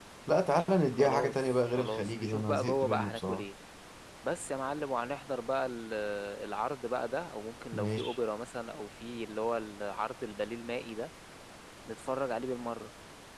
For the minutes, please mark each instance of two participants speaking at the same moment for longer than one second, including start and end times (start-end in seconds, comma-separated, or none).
0.9-3.5